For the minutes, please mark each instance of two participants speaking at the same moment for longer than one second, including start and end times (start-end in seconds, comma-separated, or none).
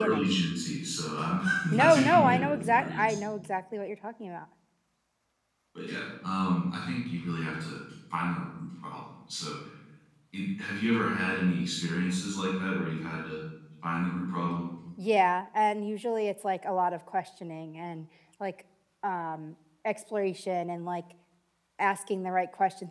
1.7-3.1